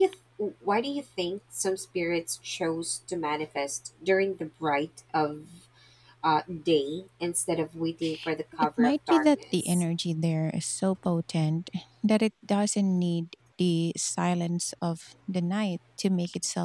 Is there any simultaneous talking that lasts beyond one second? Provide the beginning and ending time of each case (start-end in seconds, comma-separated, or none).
8.6-9.8